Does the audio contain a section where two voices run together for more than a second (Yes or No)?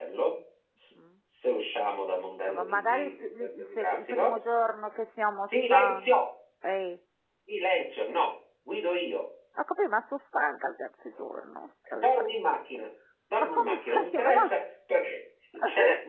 Yes